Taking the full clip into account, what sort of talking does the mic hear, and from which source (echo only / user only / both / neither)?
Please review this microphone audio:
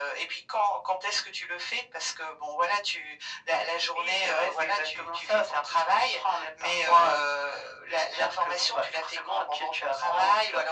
echo only